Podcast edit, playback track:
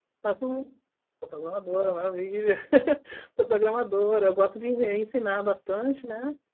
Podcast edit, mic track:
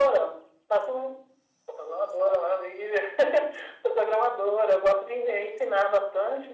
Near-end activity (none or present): none